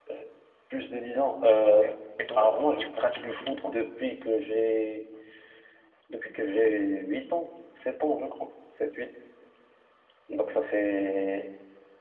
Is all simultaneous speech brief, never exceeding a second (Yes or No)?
No